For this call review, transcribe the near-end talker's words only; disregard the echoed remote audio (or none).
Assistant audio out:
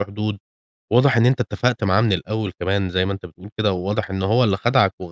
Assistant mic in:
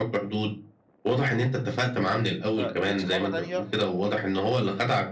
فجيت في مرّة تانية